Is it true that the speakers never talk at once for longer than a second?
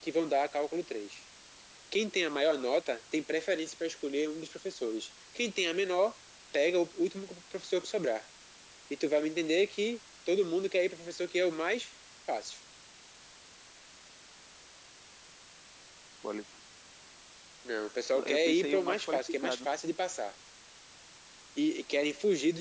No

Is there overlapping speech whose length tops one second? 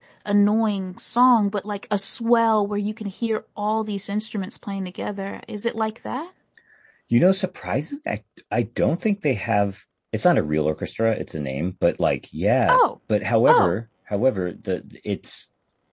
No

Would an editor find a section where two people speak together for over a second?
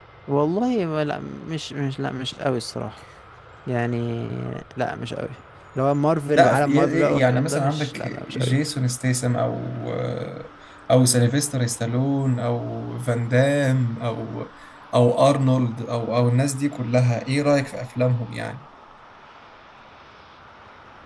Yes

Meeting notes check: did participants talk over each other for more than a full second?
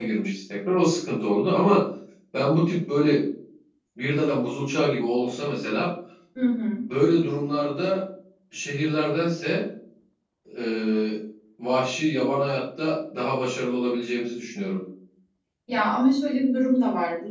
No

